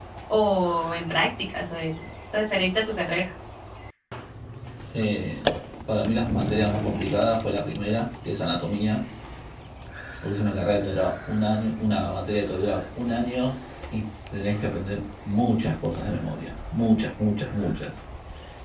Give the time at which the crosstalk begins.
none

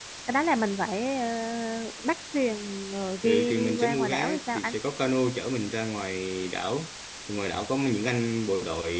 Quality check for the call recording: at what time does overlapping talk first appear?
3.2 s

